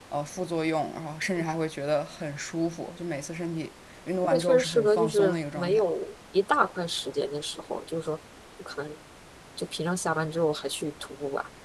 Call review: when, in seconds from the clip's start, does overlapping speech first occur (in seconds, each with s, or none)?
4.2 s